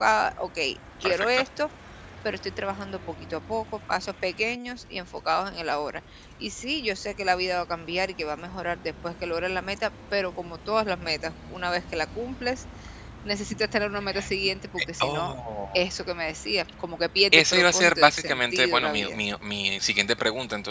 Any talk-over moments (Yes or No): Yes